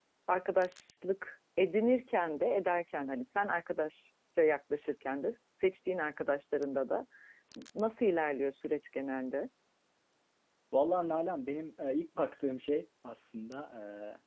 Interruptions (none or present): none